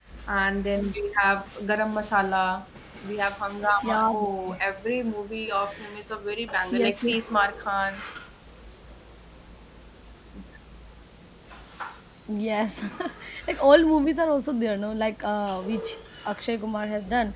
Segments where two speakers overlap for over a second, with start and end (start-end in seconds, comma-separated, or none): none